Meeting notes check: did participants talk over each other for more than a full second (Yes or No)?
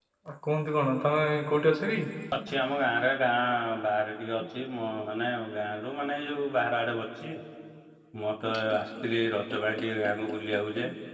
No